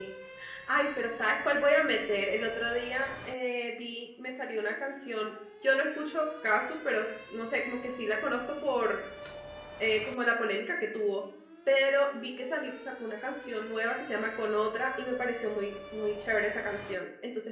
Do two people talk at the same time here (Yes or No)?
No